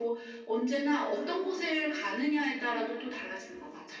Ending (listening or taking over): taking over